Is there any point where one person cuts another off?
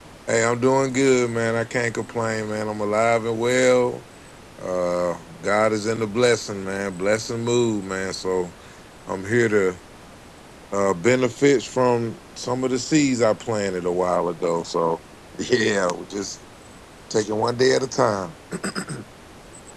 No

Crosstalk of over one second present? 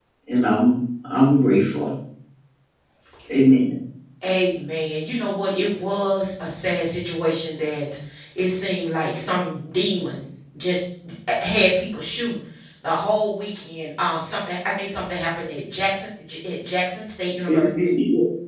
No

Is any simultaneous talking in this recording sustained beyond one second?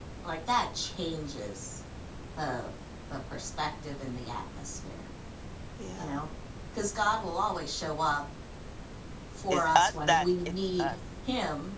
Yes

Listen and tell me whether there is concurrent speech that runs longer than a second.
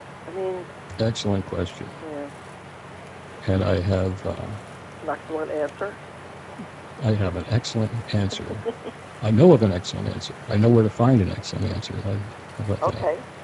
No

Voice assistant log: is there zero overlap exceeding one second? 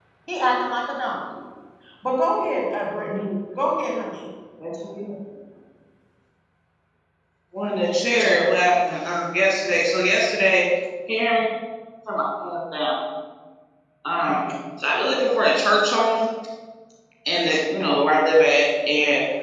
Yes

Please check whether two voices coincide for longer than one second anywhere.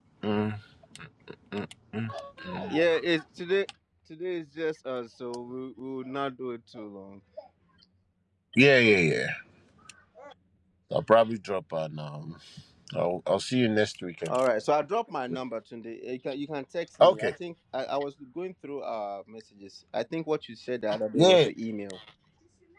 No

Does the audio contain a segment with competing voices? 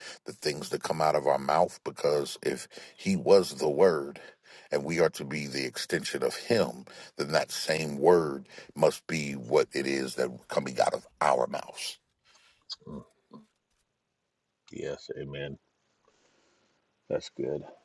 No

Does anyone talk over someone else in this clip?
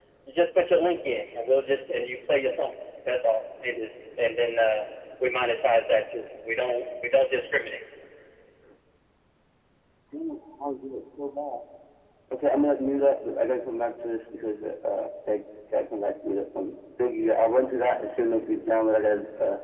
No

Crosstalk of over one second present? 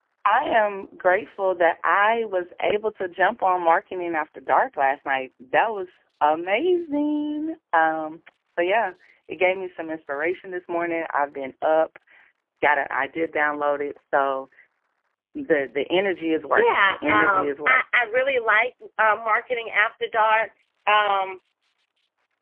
Yes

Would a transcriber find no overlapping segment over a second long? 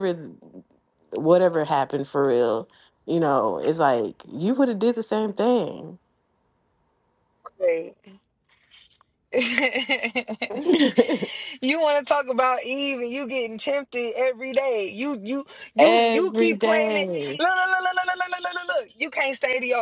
No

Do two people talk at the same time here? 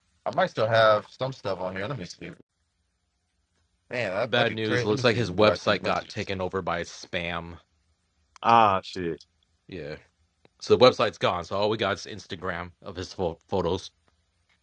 Yes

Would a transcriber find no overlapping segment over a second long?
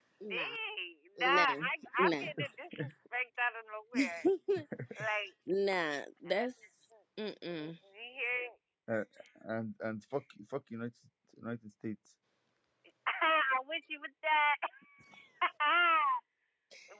Yes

